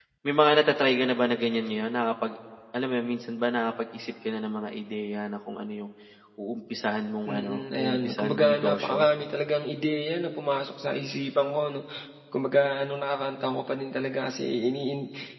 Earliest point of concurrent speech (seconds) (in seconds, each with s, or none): 7.2 s